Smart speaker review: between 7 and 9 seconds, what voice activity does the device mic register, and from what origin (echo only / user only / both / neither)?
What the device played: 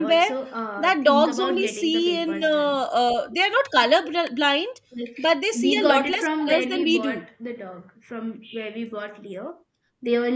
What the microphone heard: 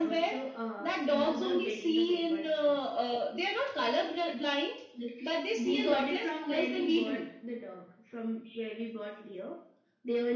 echo only